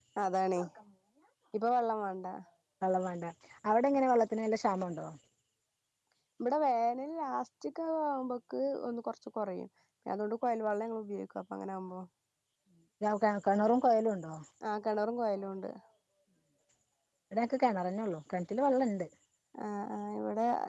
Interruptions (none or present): none